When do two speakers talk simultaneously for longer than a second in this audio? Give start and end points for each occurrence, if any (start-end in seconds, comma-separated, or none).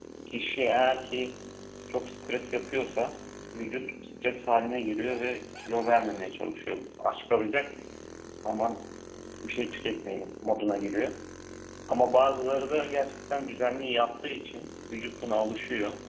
none